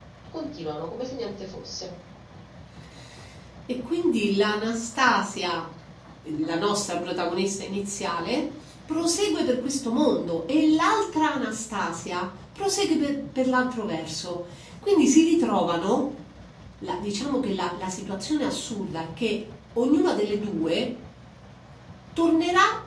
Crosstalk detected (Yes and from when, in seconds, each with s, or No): No